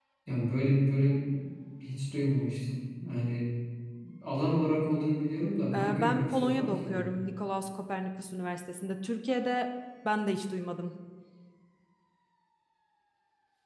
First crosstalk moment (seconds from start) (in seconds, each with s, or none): 5.7 s